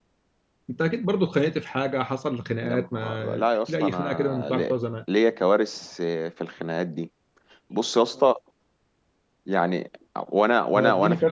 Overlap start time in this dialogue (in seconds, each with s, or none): 2.6 s